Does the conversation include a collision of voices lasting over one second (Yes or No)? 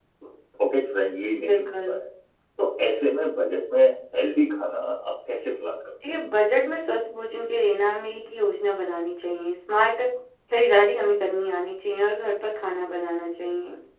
No